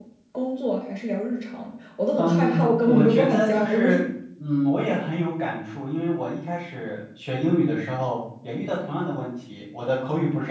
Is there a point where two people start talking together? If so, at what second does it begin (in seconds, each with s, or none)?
2.2 s